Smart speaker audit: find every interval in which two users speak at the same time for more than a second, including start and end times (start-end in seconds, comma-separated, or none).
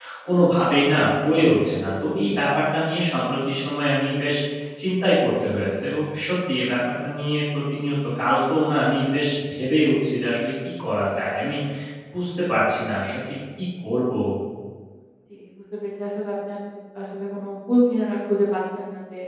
none